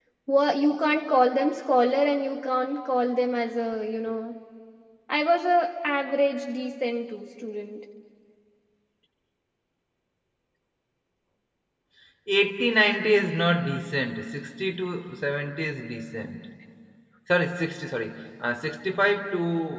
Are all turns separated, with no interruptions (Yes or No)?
Yes